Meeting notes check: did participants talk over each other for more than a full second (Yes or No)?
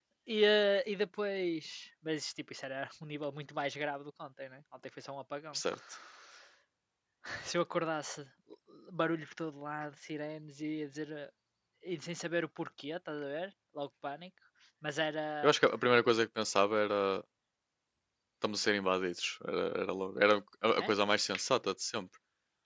No